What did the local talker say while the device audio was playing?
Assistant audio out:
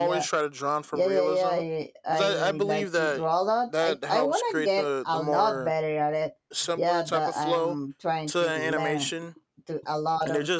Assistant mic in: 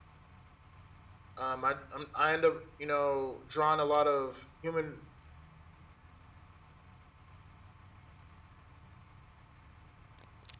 um i I'm, i end up you know drawing a lot of human

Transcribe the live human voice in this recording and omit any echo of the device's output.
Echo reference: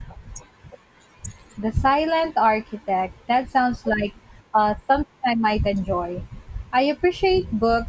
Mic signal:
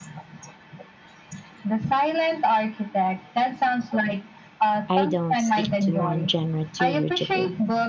I don't stick to one genre too rigidly.

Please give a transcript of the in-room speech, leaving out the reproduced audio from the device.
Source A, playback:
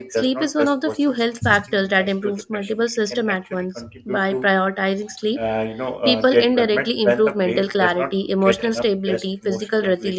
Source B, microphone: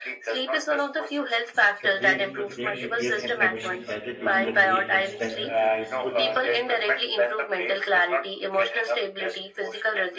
The brain, brain replays information gathered during the day and strengthens the useful

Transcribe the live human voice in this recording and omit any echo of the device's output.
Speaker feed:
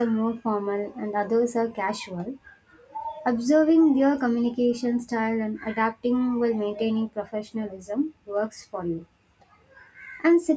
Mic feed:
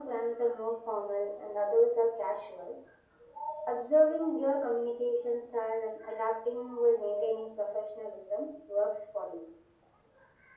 none

